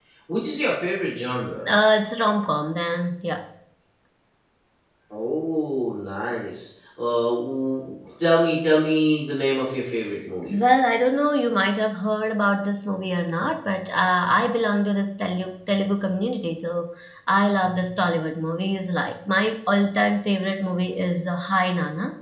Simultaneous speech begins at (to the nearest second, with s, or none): none